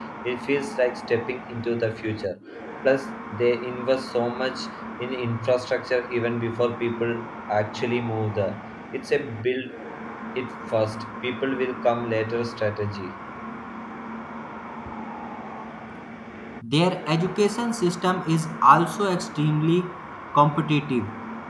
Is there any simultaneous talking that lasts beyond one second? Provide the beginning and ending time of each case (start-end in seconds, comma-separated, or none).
none